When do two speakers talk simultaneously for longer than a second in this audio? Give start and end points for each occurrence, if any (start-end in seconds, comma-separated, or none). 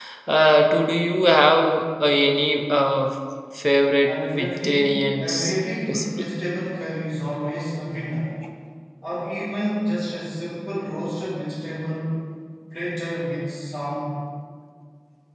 4.0-5.2